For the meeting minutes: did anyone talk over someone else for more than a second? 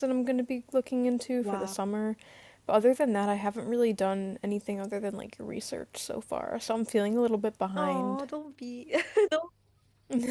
No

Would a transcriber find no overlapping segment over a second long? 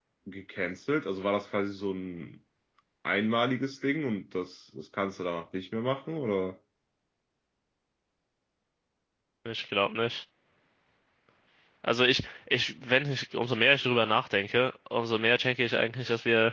Yes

